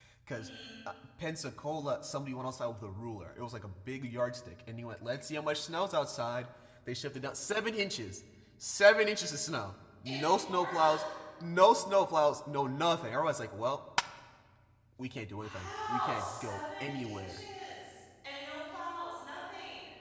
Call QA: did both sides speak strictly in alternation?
No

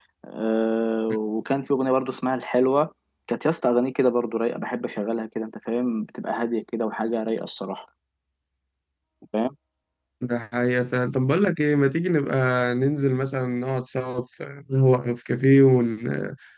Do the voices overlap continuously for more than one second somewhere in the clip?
No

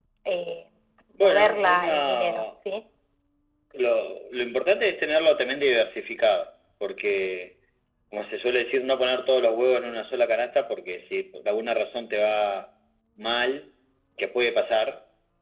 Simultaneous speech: Yes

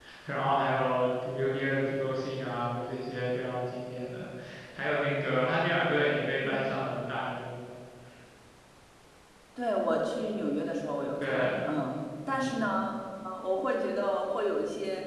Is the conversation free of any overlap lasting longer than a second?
Yes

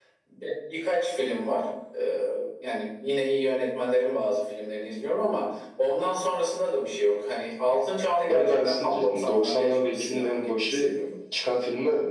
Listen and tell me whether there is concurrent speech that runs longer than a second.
Yes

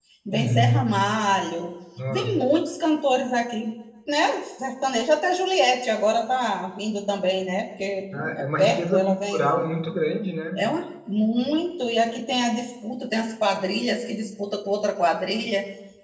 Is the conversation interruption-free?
No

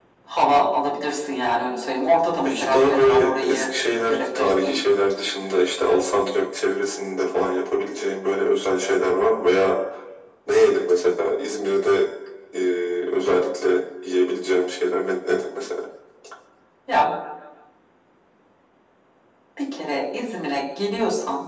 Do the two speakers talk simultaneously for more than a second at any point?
Yes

